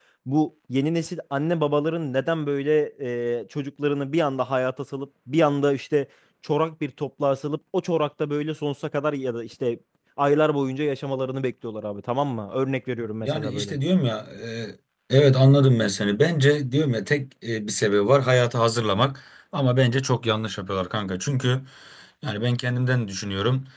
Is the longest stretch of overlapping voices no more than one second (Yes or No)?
Yes